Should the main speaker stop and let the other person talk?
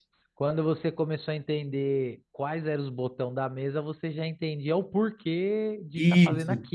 Yes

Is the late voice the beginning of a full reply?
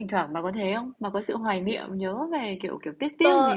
Yes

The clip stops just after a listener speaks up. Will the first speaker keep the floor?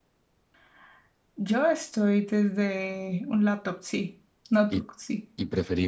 No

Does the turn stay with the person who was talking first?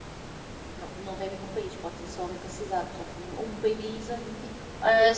No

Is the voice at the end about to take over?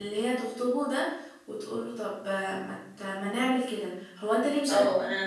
Yes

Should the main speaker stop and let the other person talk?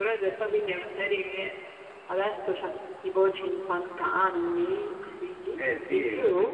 Yes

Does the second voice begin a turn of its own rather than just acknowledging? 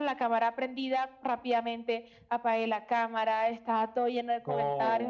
No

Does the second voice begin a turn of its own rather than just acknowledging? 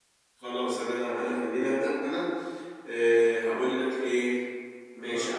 No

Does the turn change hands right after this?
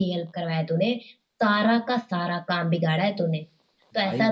No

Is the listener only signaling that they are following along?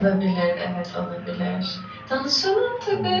Yes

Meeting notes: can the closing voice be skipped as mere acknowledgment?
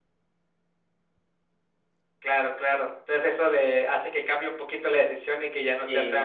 No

